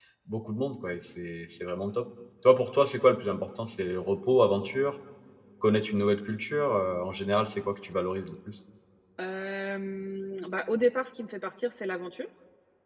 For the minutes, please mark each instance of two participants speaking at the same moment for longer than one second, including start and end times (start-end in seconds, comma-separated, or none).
none